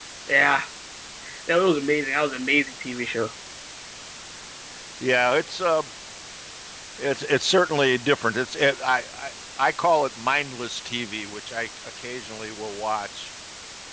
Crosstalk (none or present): none